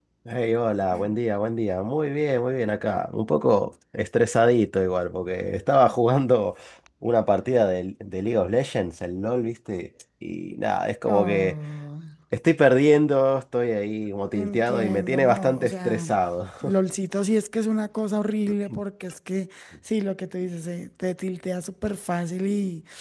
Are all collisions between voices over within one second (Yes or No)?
No